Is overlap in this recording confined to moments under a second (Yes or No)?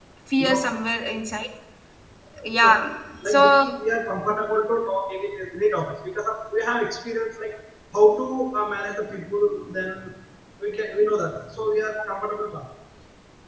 Yes